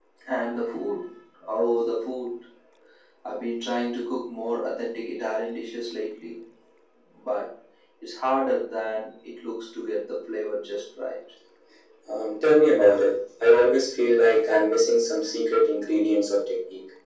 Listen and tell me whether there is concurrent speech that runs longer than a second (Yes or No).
No